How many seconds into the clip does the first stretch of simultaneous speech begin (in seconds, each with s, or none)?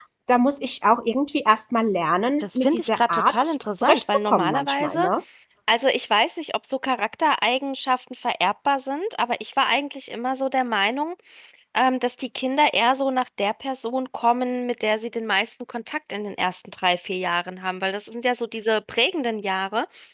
2.4 s